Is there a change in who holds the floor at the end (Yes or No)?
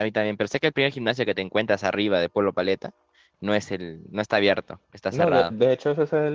Yes